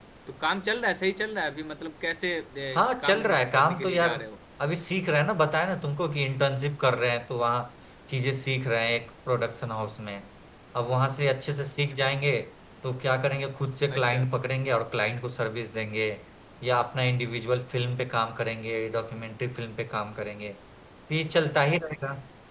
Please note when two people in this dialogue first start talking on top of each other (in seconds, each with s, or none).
2.8 s